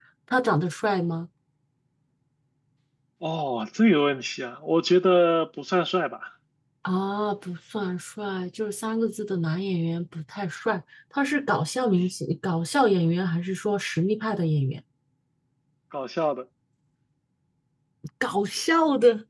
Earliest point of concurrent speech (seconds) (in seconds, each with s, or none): none